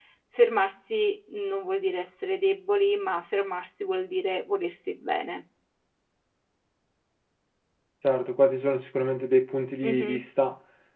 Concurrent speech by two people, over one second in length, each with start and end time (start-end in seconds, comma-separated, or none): none